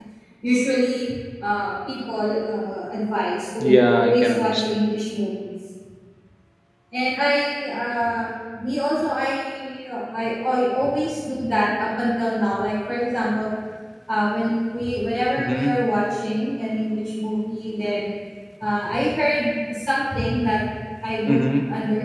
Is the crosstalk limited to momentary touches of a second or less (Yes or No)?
No